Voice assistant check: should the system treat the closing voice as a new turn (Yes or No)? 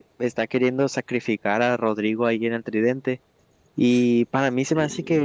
No